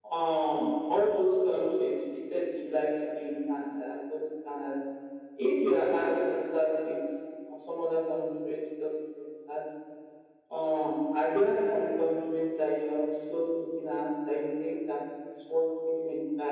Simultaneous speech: No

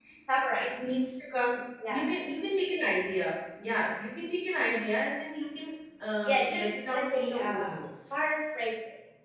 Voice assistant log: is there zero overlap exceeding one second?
No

